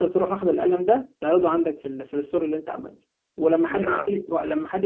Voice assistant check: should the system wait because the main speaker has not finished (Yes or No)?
Yes